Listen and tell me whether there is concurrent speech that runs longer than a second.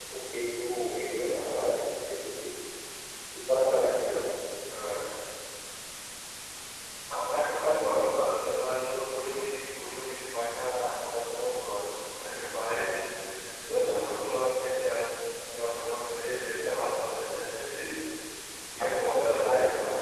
Yes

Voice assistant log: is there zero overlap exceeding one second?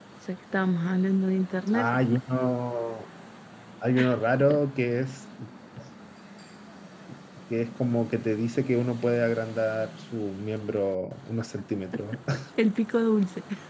Yes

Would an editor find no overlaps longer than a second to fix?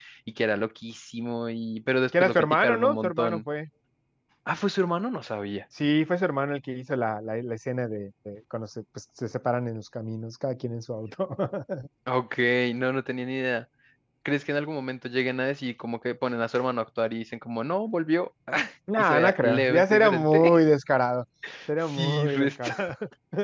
No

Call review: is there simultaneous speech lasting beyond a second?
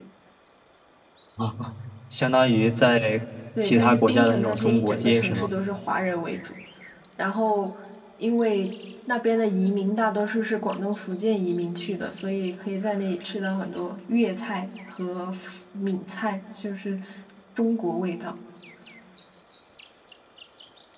Yes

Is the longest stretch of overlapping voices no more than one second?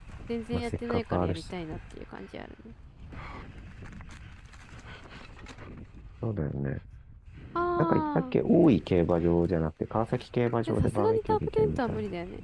No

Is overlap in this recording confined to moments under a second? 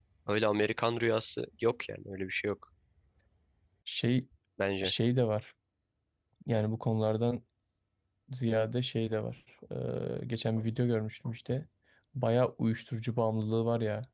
Yes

